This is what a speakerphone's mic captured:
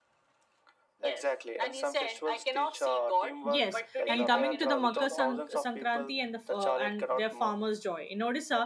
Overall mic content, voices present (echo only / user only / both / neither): both